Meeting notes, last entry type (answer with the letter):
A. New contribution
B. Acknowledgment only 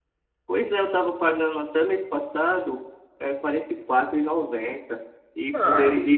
B